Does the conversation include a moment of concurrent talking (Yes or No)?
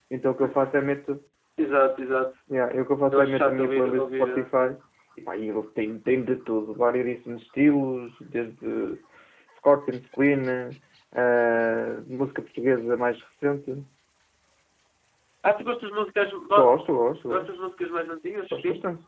Yes